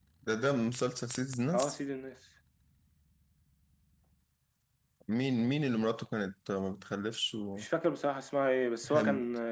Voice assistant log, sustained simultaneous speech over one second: none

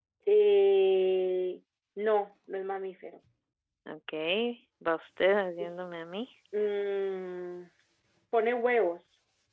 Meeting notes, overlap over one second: none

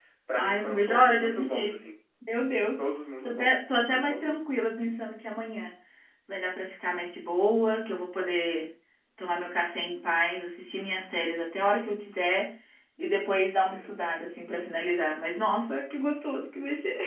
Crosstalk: present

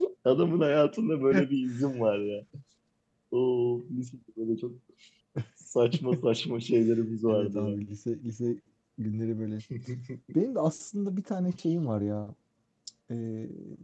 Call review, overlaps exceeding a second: none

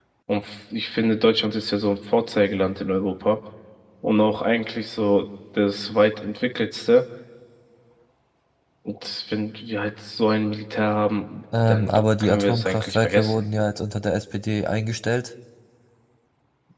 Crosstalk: present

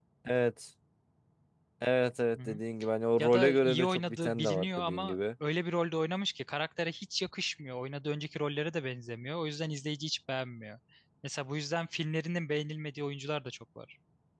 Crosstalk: present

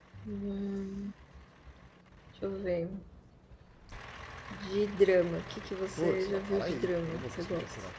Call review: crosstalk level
present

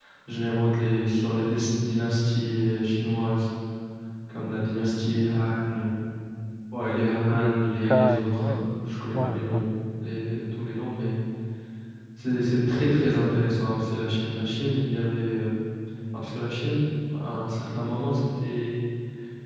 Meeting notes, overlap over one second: present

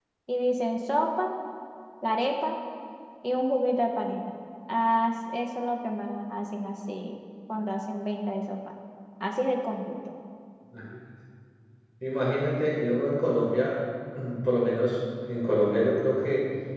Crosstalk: none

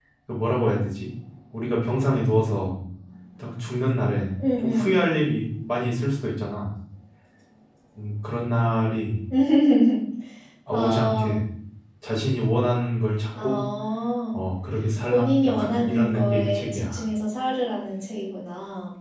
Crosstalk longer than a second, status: present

